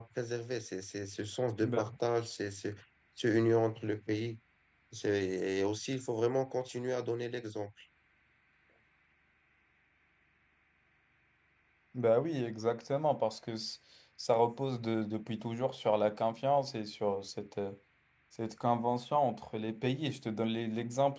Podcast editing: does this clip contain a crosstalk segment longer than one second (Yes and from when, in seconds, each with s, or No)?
No